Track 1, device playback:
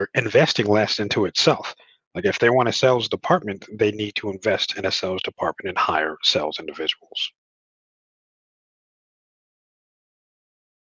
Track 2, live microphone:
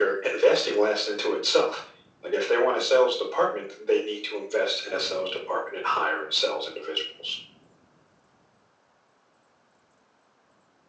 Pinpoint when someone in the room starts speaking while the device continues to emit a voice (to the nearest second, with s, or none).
none